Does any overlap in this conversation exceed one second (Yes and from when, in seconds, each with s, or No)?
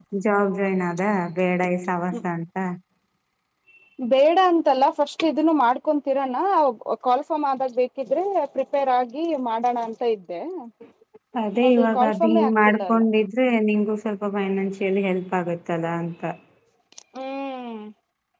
Yes, from 11.7 s